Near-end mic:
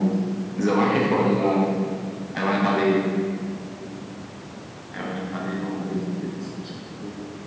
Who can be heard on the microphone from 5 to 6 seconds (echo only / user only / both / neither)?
echo only